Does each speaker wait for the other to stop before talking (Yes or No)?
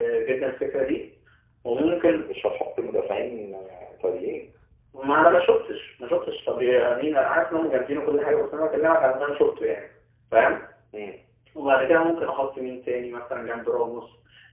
Yes